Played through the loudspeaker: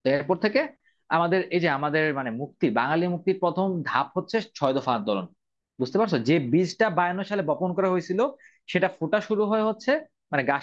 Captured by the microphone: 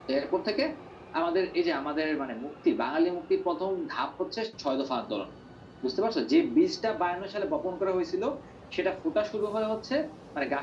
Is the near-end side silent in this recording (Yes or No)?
Yes